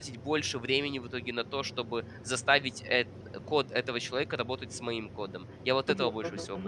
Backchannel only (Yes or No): No